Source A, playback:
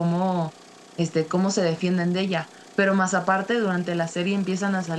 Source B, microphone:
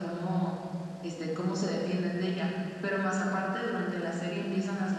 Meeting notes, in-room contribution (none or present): none